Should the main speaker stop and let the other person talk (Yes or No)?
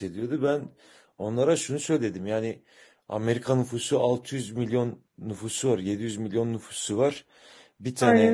No